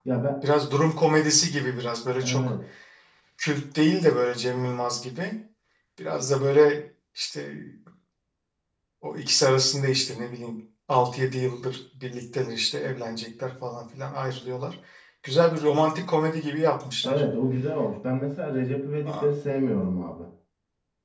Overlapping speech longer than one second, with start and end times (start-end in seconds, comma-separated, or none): none